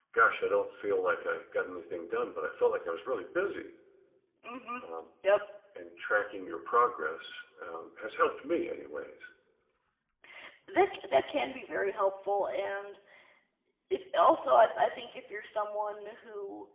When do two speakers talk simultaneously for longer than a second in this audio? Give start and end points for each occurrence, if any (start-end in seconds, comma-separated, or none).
none